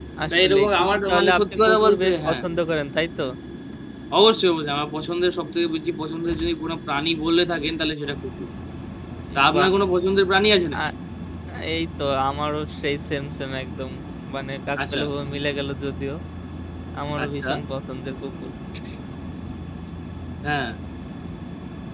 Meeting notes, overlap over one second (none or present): present